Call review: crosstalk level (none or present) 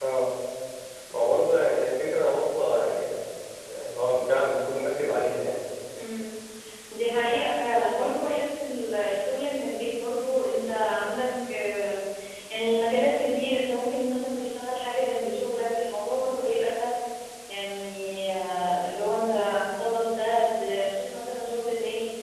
none